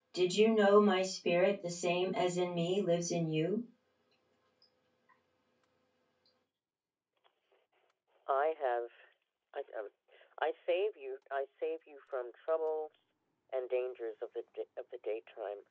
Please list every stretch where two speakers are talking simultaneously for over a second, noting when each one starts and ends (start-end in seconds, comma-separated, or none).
none